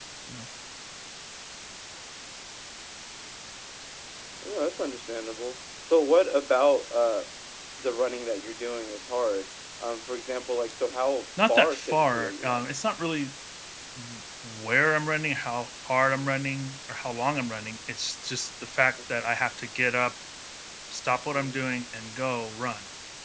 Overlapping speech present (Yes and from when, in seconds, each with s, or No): Yes, from 11.4 s